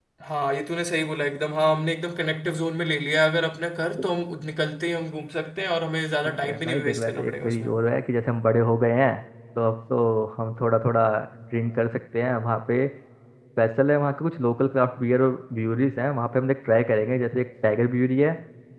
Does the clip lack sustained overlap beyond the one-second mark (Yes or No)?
No